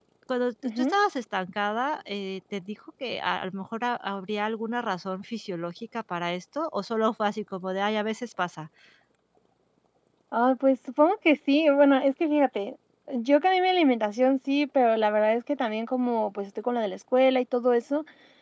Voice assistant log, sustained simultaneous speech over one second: none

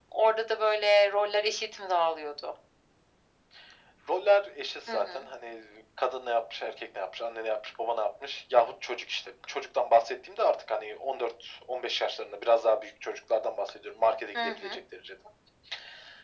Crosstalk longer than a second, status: none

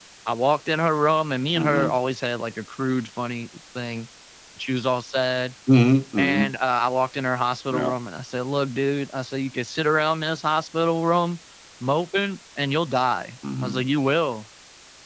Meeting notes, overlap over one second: none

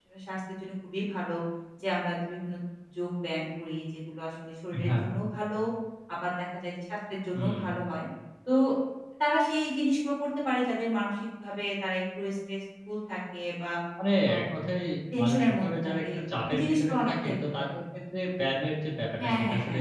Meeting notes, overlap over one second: present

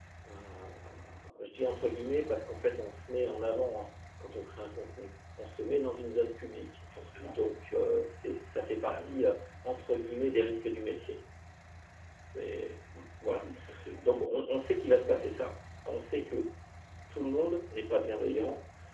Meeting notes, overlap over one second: none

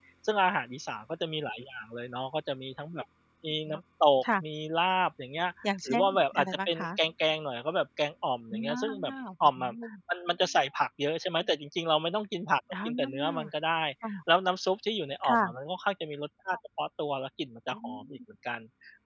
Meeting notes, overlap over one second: present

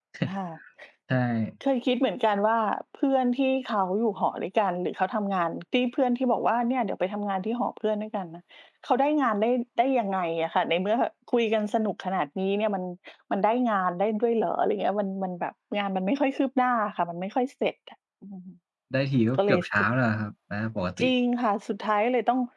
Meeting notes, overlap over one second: none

